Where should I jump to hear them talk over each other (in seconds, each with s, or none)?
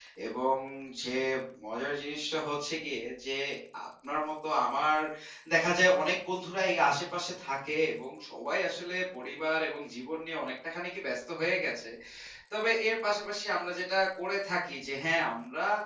none